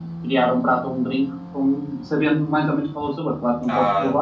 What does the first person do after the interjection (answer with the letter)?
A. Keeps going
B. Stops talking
B